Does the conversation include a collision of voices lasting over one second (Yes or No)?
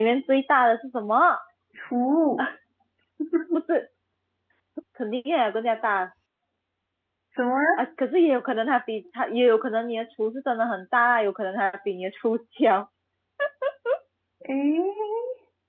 No